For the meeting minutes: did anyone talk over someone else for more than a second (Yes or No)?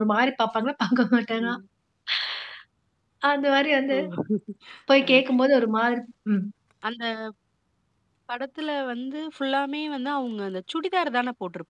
No